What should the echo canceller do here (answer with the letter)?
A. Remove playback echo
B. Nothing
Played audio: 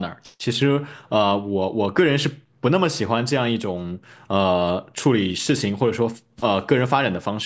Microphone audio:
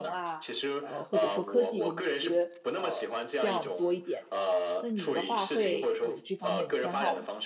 A